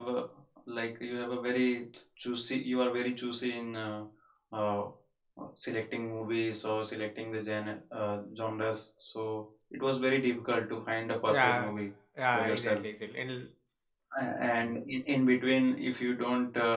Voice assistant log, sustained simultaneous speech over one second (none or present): none